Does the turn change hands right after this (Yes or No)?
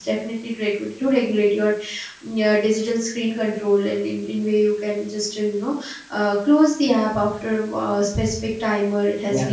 No